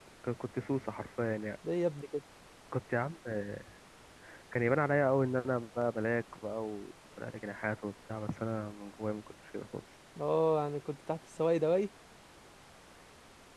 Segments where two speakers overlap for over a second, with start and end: none

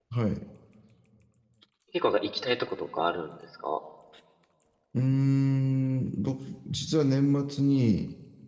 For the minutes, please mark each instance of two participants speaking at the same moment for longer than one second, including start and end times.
none

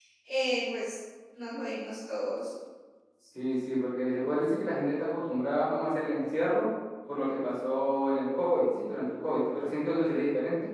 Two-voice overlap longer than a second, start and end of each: none

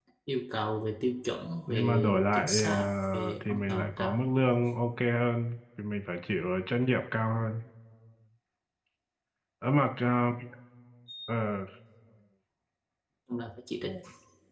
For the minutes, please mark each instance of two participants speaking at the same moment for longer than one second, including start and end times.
1.7-4.3

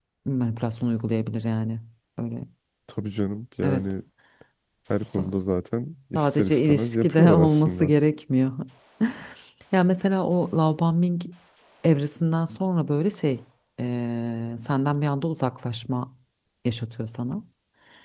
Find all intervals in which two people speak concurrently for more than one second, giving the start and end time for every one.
6.2-7.9

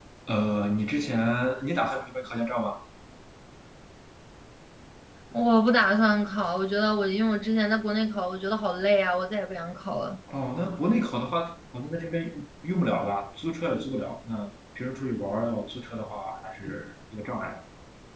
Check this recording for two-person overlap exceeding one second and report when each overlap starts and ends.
none

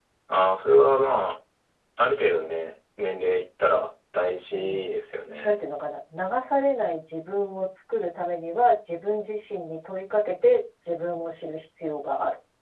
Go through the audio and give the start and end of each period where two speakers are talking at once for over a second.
none

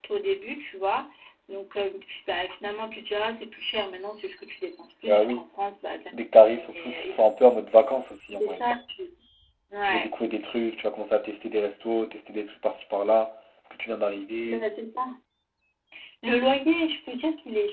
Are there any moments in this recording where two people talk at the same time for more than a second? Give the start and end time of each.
none

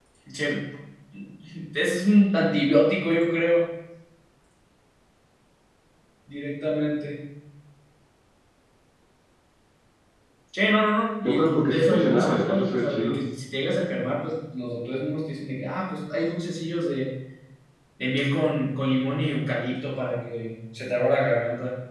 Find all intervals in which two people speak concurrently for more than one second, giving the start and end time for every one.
11.2-13.2

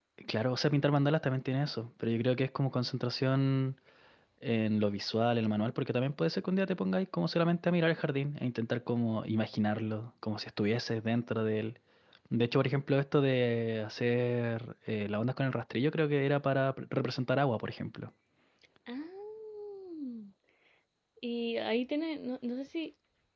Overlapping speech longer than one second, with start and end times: none

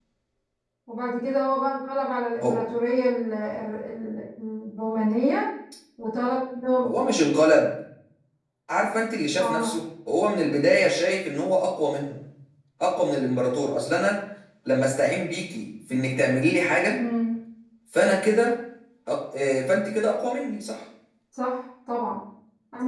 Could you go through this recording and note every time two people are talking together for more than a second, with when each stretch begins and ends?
none

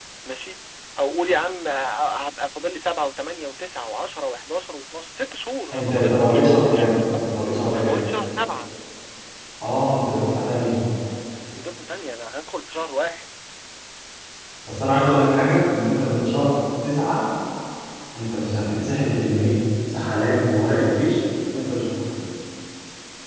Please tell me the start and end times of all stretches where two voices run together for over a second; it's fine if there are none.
5.7-6.9

